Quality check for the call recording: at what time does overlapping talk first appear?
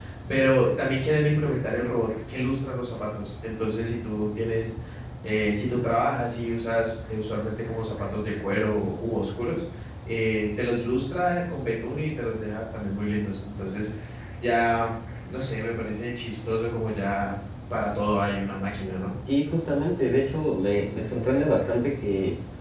none

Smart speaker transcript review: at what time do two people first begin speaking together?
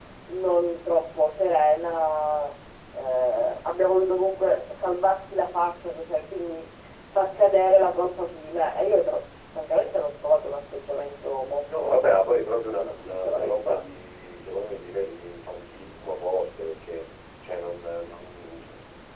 11.7 s

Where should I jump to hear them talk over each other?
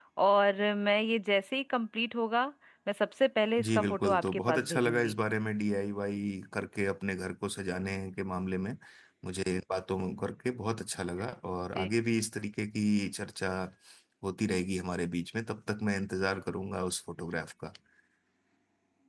3.6 s

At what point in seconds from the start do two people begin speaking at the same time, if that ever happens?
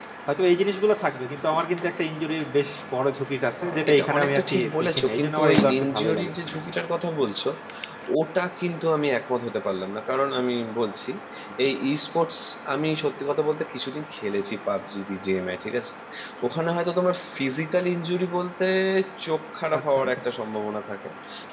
3.9 s

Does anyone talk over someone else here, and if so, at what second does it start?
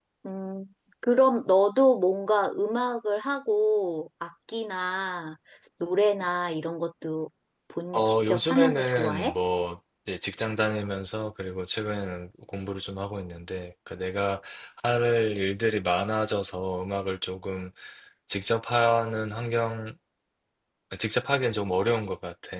7.9 s

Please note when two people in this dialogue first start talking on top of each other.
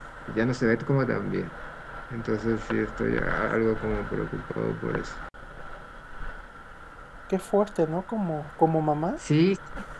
none

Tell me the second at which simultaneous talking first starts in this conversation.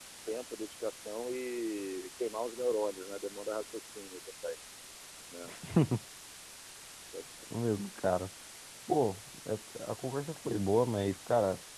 none

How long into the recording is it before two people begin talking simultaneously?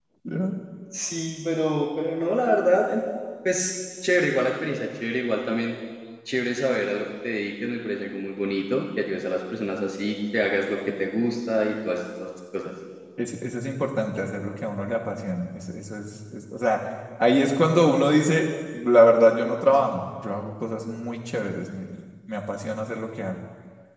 none

